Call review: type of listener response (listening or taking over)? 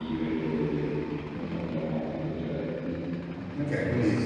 taking over